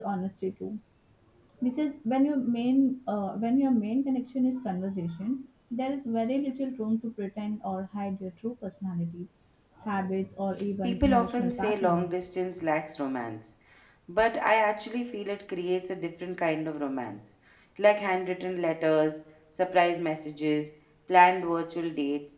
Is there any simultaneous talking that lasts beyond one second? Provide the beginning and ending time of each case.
10.8-12.1

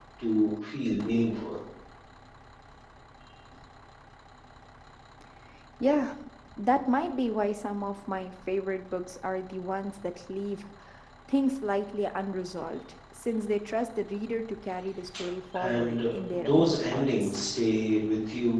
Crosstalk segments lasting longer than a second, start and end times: 15.6-17.4

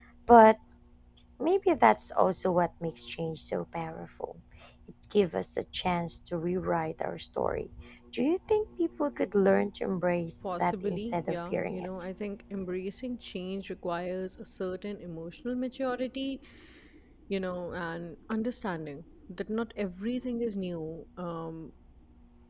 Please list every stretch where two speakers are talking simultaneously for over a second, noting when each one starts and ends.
10.4-11.9

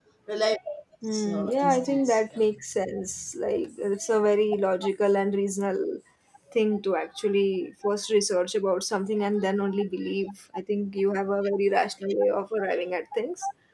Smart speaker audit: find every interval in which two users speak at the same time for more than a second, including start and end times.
1.0-2.4

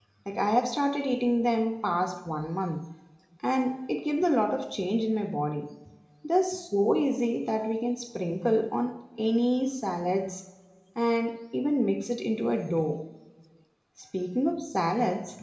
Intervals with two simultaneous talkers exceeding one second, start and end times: none

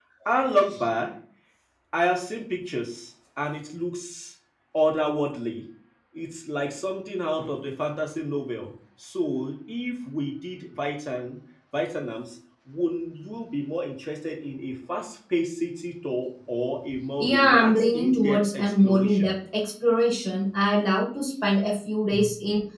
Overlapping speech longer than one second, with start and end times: 17.2-19.3

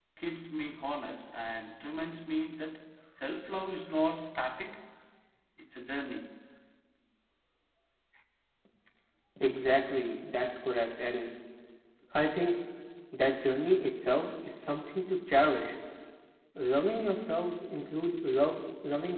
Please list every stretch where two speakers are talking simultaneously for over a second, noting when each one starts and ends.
none

